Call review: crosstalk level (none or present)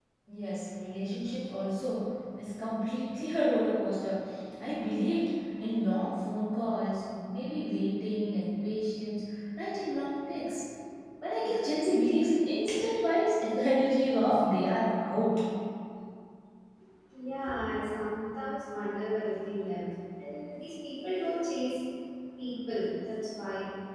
none